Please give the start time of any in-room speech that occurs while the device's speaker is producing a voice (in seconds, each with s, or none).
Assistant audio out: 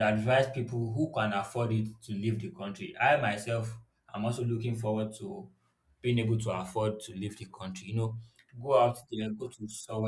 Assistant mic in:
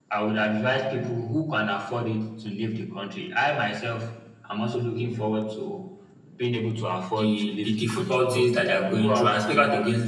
7.1 s